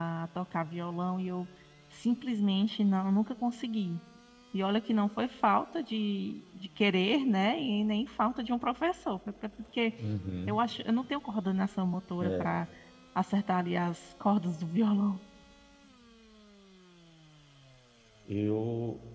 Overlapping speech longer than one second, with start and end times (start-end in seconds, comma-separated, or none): none